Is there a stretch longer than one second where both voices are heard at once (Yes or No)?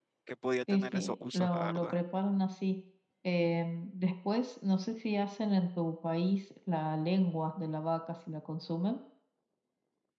Yes